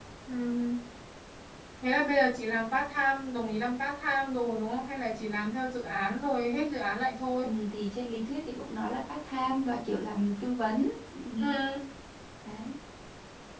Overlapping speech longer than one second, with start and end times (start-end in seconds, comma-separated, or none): none